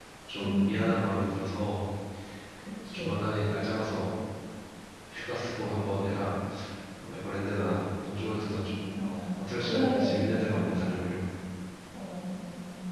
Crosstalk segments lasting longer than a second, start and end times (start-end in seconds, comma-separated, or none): 9.4-10.7